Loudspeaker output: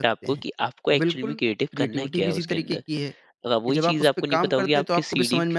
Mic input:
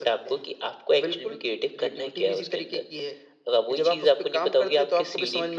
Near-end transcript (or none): none